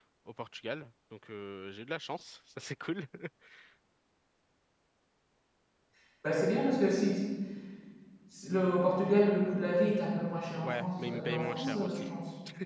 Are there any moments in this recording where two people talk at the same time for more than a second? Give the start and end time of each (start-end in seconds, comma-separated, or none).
10.6-12.1